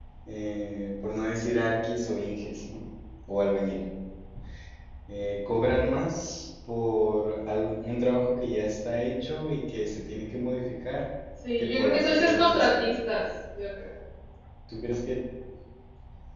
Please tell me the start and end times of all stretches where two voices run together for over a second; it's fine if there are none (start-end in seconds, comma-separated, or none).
11.6-12.9